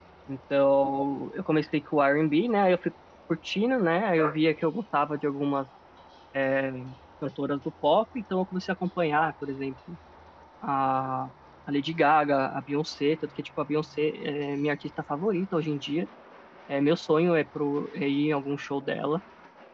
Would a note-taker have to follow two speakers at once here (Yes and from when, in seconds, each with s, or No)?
No